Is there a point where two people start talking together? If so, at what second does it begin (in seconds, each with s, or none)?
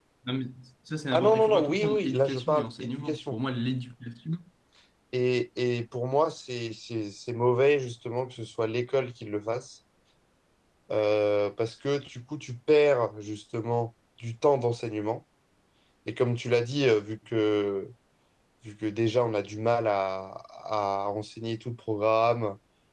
1.1 s